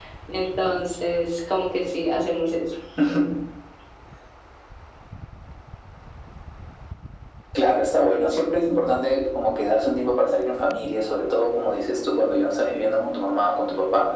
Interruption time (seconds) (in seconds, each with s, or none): none